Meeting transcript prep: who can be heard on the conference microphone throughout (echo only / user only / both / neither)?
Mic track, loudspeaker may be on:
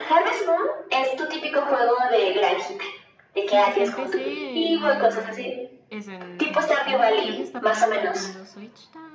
both